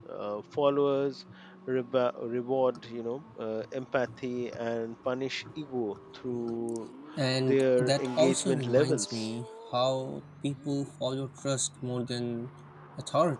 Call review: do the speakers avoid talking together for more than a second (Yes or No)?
No